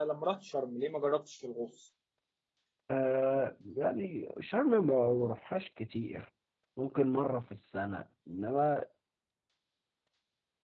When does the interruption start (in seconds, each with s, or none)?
none